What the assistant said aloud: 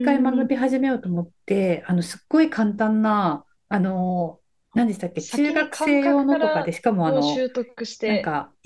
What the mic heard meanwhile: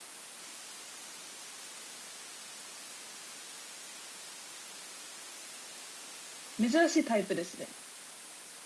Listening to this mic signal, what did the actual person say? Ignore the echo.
珍しいタイプですね。

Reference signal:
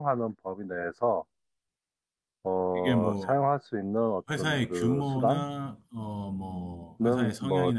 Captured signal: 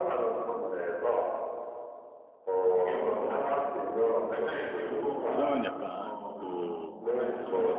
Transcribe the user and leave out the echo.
그러면 약간 그

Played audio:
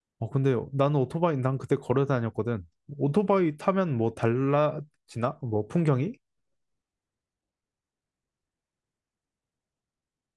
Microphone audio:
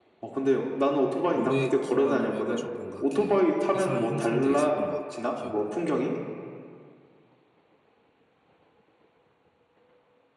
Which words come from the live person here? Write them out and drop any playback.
모래 기반으로 해가지고 뭔가 이렇게 이상한 형상들이 있었던 것 같아. 기억으로.

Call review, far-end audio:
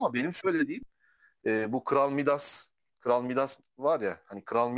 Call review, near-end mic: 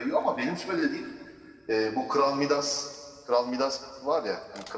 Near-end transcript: none

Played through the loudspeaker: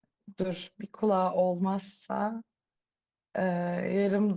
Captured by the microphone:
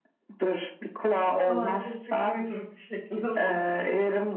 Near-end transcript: Allah da çok uyduruk bir şekilde sordu.

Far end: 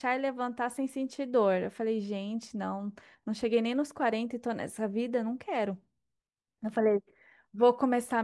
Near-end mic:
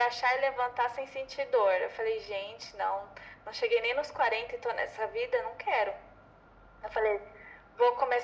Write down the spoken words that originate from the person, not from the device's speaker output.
none

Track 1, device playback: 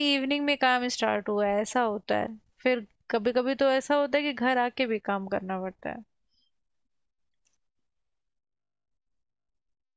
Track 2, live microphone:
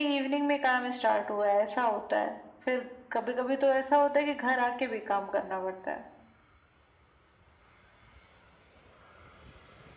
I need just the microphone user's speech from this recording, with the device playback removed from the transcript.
none

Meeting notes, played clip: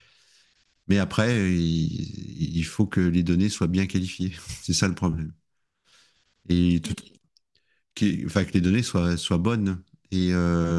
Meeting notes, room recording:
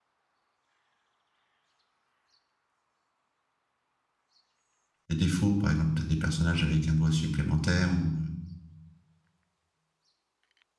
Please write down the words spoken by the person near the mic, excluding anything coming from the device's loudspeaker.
Des défauts, par exemple, tu as des personnages avec un doigt supplémentaire ou, euh,

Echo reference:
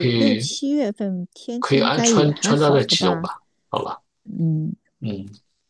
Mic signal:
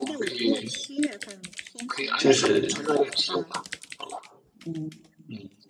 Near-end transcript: 就是

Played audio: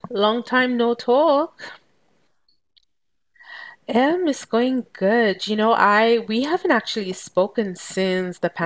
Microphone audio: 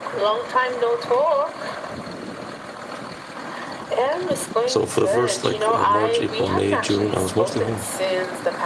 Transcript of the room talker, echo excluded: So for the first like uh, March, April, May, June, I was mostly home.

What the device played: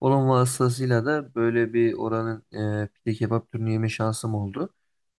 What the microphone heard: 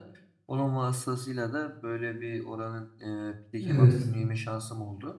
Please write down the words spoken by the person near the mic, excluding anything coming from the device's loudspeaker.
Evet.

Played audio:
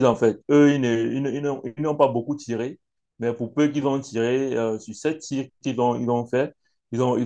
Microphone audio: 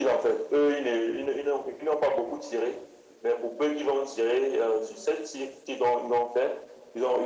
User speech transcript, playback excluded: none

